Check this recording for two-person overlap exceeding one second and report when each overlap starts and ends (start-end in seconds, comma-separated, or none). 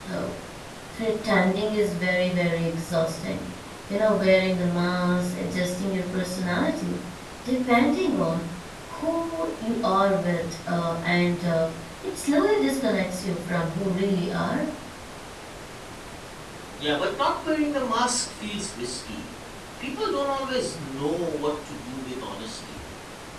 none